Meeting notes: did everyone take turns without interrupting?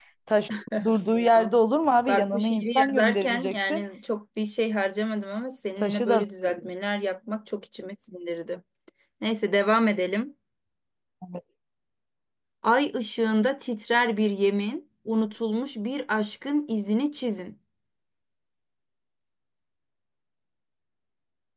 No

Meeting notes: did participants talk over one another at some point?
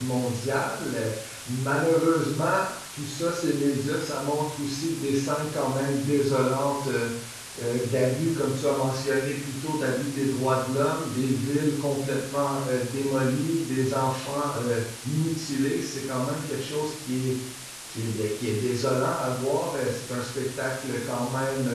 No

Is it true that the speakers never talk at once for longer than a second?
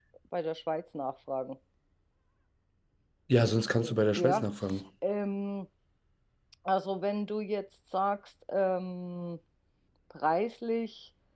Yes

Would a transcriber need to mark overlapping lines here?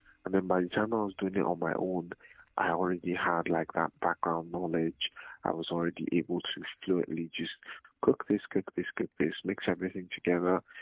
No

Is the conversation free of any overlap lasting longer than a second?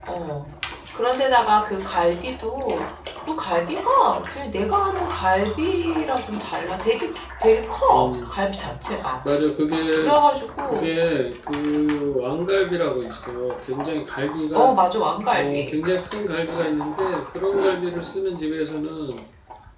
Yes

